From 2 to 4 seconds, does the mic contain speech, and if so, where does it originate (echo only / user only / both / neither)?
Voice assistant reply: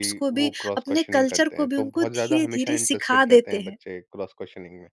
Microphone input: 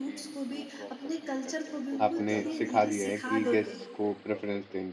both